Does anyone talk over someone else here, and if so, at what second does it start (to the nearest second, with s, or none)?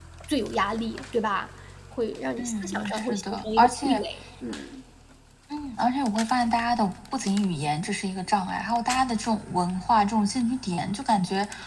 2 s